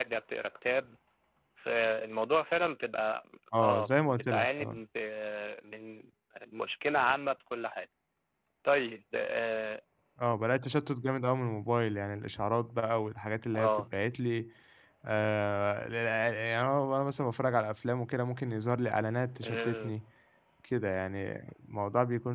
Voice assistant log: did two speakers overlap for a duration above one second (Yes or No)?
Yes